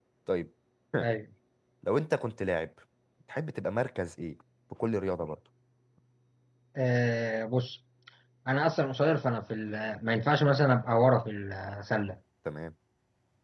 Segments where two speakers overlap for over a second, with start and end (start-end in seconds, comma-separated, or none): none